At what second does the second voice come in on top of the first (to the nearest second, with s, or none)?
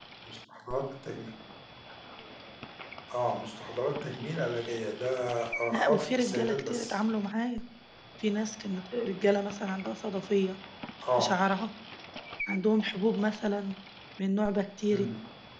6 s